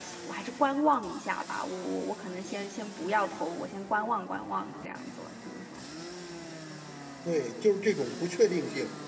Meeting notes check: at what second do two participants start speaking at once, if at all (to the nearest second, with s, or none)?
none